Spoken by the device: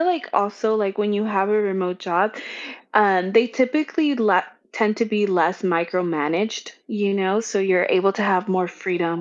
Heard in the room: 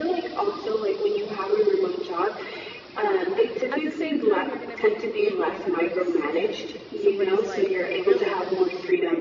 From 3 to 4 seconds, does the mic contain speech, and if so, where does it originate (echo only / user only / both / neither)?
both